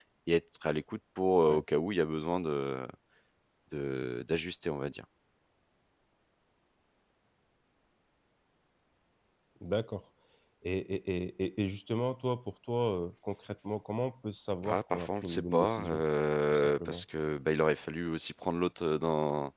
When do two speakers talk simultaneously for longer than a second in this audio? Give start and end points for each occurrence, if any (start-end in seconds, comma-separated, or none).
14.6-16.0